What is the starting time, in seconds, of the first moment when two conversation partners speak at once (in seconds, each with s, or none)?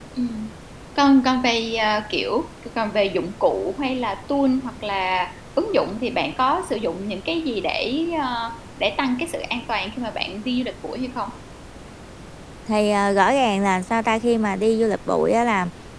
none